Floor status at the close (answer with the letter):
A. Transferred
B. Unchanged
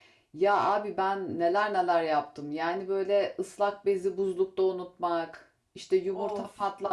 B